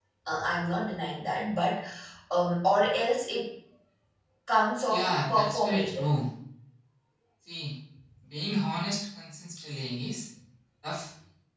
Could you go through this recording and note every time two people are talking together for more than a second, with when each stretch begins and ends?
4.9-6.1

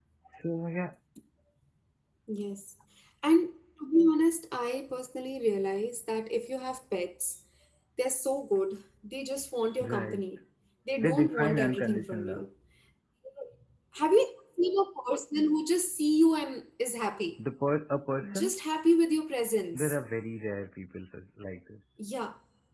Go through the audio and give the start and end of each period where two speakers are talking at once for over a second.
11.0-12.4

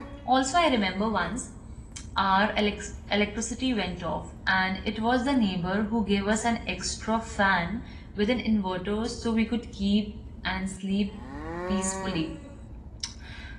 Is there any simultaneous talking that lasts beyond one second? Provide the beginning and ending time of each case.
none

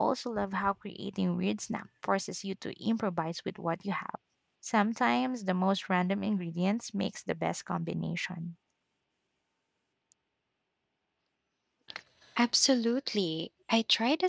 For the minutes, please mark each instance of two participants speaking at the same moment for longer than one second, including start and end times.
none

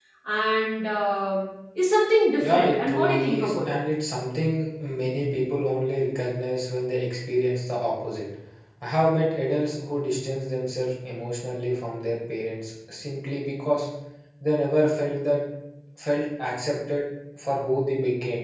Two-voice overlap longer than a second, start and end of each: 2.4-3.8

